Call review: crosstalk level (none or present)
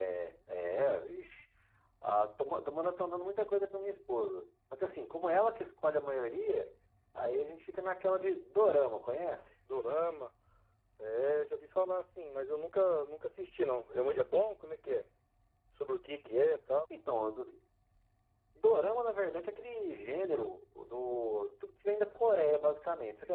none